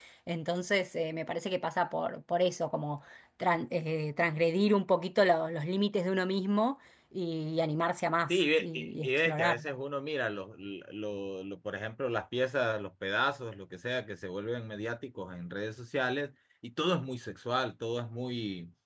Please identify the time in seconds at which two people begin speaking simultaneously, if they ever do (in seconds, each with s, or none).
8.3 s